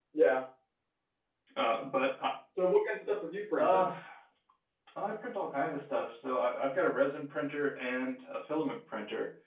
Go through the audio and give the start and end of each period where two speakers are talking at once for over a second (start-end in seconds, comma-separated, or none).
none